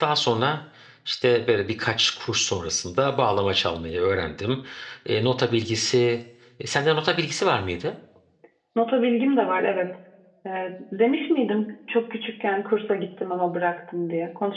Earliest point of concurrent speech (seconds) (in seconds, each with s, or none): none